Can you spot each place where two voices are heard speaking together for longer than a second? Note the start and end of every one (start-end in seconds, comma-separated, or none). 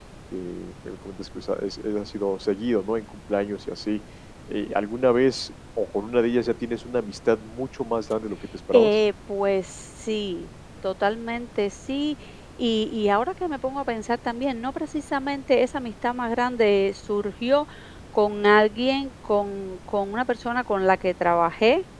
none